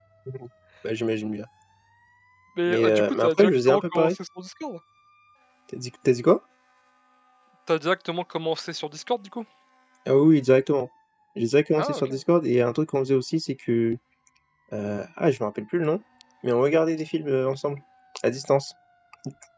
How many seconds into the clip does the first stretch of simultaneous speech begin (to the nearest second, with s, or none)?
3 s